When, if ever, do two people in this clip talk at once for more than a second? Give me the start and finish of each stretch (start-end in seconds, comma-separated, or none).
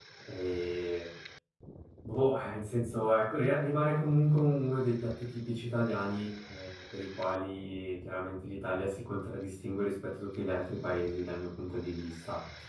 none